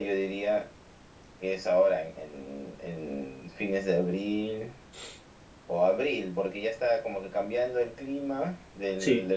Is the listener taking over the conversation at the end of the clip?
No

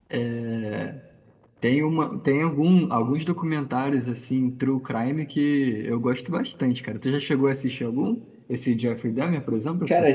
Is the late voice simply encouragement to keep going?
No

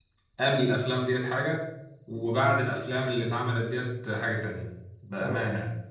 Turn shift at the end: Yes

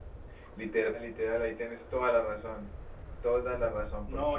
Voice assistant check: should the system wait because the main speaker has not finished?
No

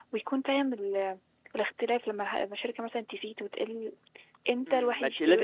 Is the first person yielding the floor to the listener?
Yes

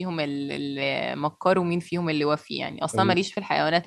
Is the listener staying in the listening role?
Yes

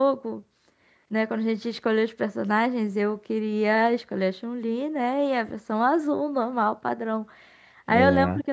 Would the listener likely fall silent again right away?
Yes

